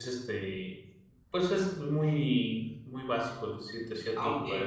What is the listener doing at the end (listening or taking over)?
taking over